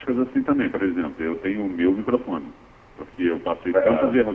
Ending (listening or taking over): listening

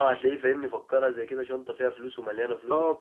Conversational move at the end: taking over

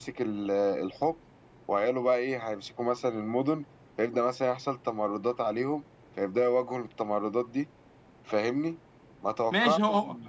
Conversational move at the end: taking over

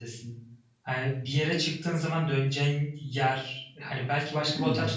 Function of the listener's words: listening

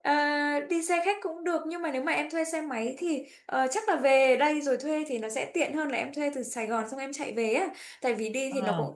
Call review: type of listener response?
listening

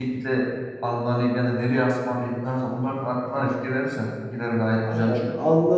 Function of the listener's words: taking over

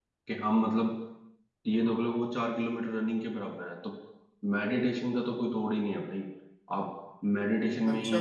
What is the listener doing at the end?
taking over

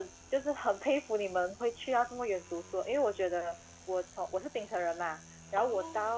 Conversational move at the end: listening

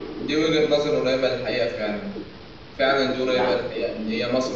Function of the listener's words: listening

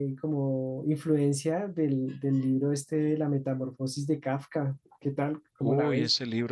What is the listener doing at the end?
taking over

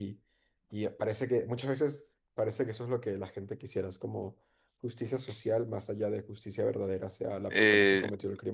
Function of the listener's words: taking over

